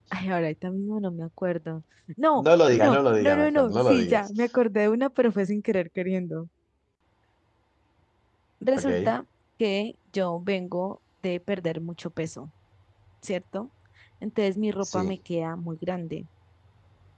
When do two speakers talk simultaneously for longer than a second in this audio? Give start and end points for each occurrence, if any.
2.4-4.3

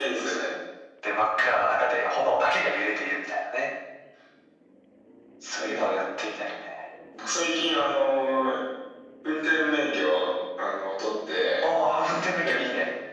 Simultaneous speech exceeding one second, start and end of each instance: none

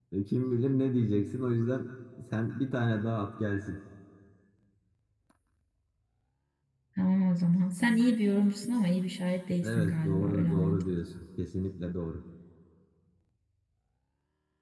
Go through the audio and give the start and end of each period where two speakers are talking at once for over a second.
9.6-10.8

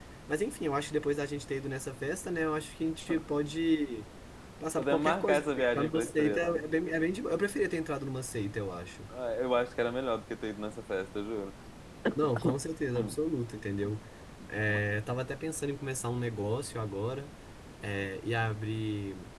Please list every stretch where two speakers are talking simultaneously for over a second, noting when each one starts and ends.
4.8-6.7

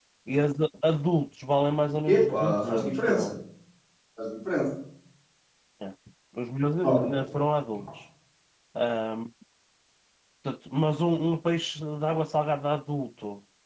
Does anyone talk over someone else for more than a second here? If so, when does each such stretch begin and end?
2.0-3.3

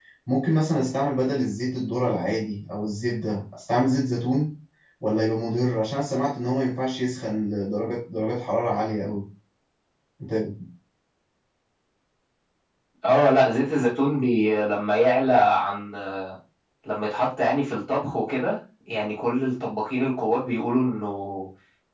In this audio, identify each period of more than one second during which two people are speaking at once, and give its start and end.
none

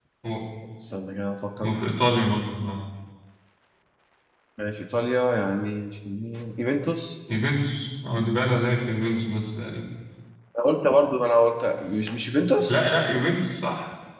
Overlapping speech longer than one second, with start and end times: none

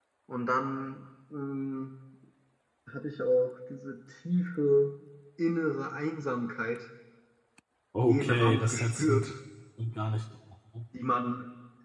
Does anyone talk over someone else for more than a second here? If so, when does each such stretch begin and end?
8.1-9.3

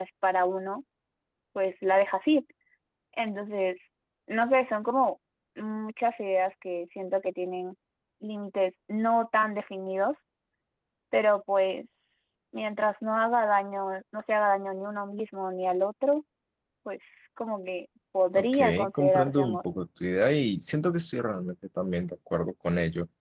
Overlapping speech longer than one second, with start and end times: 18.4-19.6

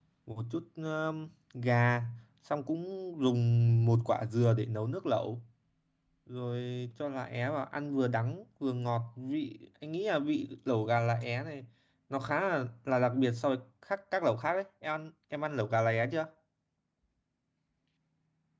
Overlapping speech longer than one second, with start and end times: none

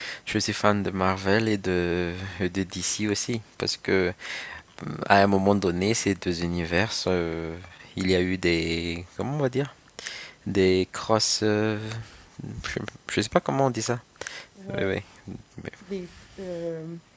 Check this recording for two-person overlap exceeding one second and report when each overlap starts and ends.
none

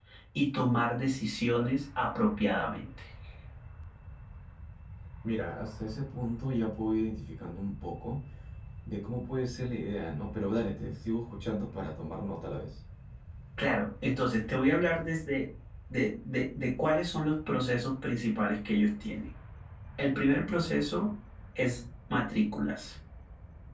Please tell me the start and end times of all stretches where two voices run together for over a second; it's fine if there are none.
none

